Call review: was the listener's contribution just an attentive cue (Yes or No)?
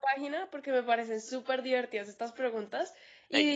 Yes